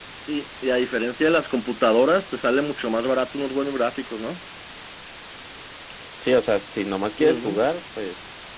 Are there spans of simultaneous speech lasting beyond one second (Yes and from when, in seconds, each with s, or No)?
No